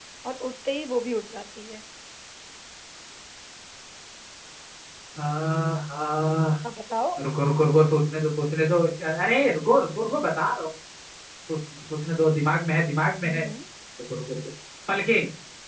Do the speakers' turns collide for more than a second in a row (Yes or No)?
No